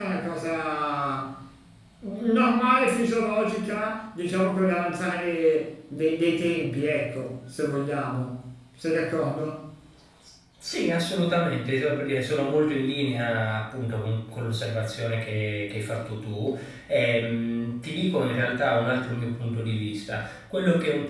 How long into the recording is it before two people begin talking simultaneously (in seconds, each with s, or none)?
none